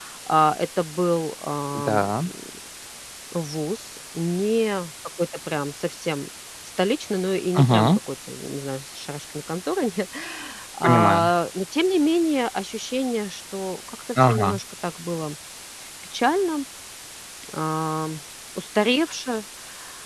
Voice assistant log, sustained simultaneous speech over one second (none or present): none